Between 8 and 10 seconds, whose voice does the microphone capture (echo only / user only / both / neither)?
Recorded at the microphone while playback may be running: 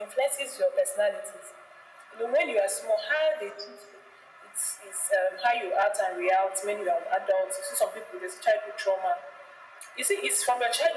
echo only